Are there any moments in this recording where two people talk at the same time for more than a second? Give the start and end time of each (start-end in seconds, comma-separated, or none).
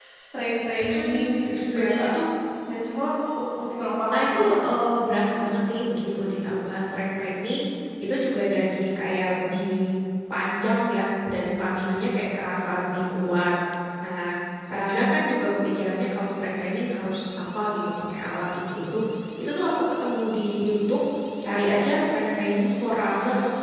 0.8-2.1